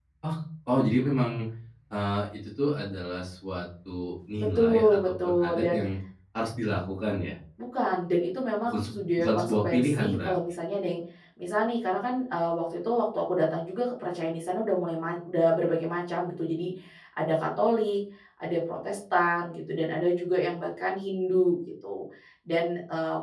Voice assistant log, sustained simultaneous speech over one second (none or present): present